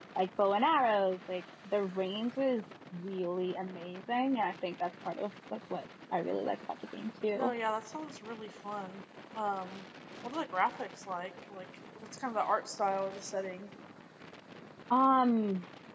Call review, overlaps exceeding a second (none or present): none